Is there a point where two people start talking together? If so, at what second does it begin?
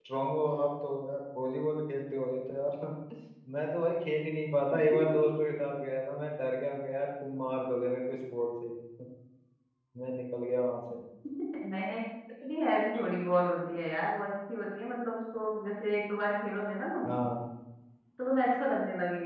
none

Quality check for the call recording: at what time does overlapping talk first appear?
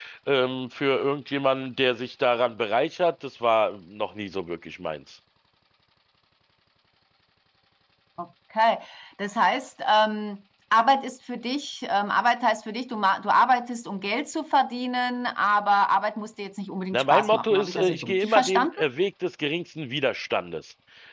16.9 s

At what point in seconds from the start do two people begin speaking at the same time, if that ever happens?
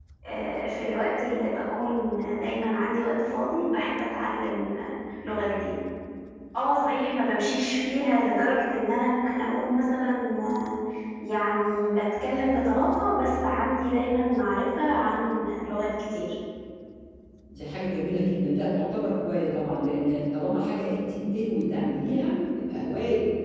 none

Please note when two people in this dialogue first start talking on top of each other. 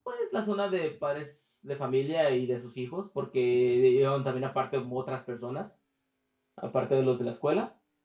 none

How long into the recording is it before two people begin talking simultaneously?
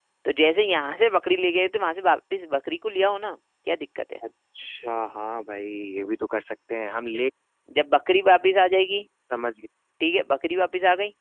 none

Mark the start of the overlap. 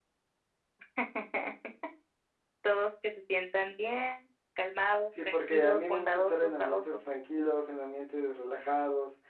5.2 s

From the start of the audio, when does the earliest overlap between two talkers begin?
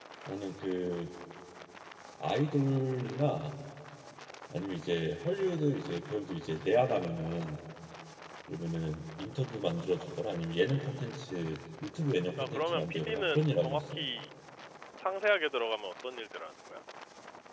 12.4 s

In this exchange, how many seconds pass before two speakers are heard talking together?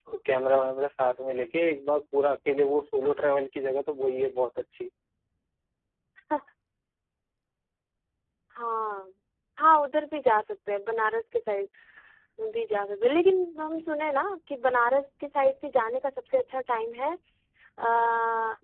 none

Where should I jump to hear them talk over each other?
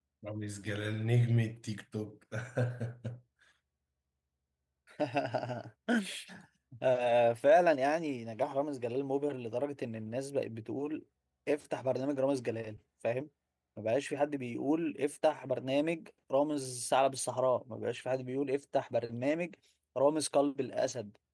none

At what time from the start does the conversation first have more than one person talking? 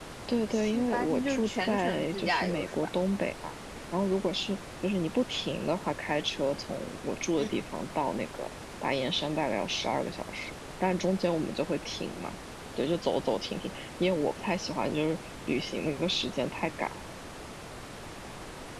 0.5 s

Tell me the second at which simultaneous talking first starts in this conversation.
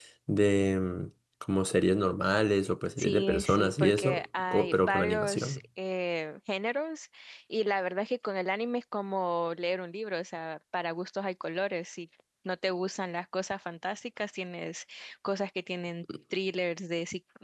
3.0 s

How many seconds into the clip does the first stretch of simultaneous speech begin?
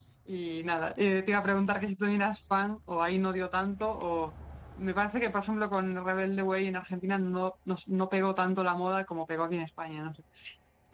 none

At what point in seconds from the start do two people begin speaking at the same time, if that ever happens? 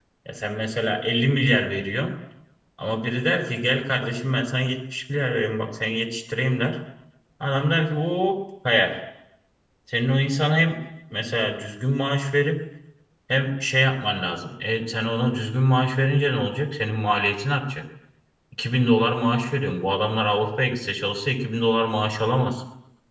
none

